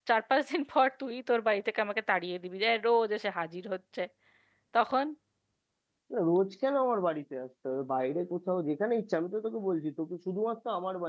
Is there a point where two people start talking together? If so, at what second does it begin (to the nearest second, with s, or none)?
none